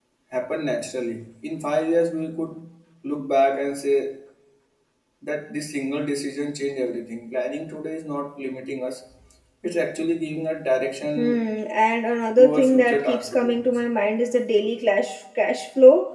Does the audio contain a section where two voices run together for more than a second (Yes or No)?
Yes